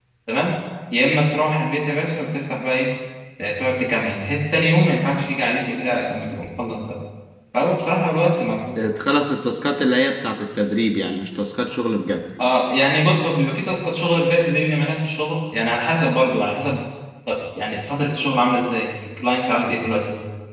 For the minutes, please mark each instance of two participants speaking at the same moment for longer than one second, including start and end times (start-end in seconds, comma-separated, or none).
none